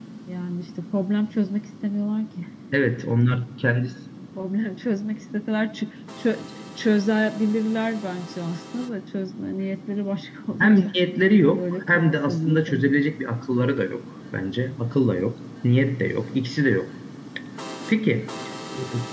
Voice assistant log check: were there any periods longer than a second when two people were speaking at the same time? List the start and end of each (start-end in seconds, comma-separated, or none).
11.5-12.9